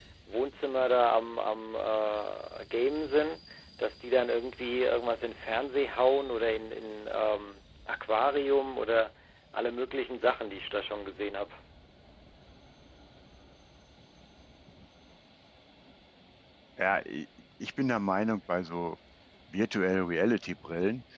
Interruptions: none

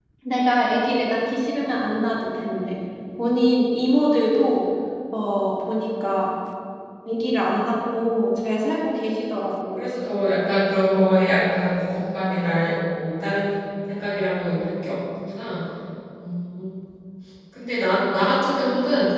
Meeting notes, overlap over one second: none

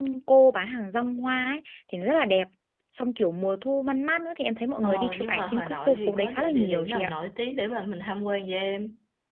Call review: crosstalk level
present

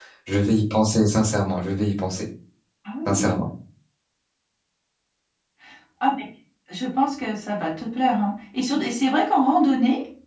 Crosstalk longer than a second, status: none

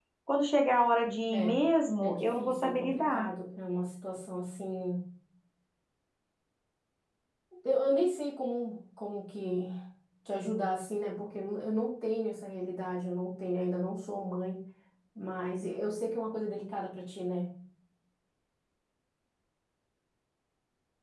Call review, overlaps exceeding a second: present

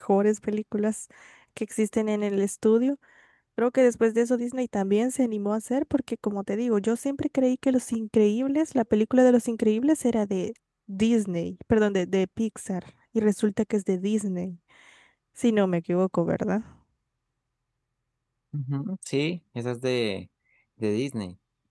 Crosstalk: none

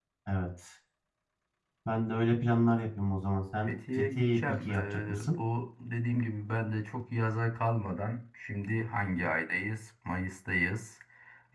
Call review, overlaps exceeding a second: present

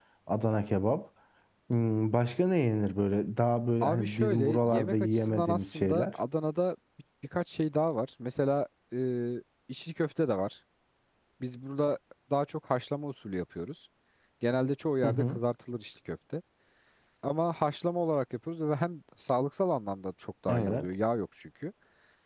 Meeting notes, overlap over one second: present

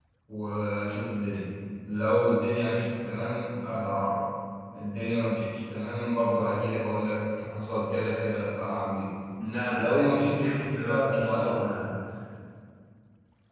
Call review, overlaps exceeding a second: present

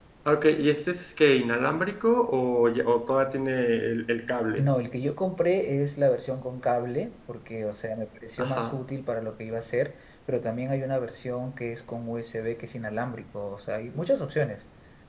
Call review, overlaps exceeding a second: none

